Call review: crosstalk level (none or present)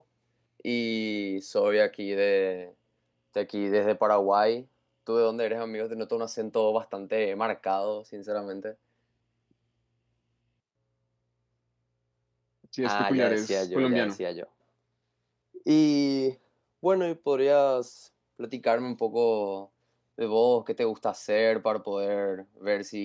present